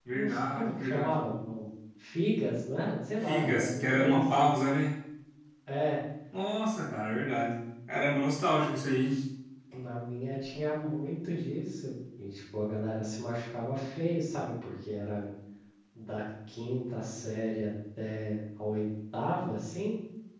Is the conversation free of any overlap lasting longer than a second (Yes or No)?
No